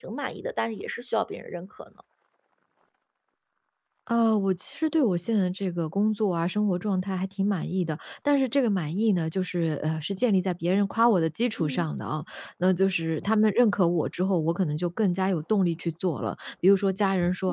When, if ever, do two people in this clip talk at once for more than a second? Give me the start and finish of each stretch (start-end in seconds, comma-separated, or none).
none